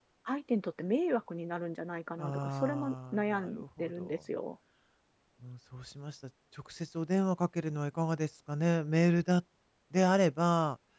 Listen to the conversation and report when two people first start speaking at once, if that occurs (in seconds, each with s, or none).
2.2 s